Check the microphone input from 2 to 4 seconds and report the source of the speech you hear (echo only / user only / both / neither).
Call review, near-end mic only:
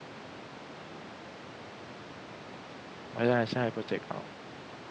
user only